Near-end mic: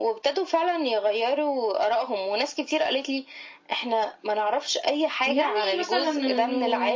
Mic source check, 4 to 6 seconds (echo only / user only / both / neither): both